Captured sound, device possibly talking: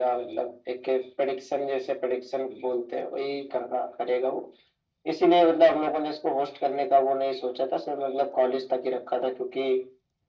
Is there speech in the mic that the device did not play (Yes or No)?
No